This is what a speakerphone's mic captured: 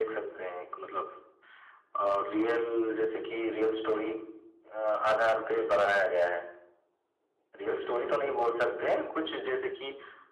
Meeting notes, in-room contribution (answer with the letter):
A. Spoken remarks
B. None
B